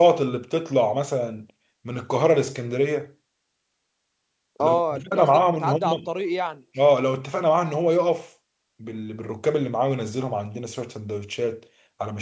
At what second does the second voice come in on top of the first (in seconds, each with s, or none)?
4.6 s